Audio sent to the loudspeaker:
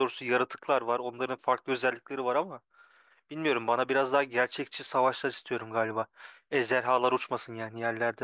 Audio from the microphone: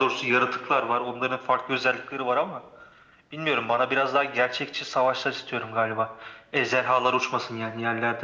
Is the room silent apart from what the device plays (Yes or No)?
Yes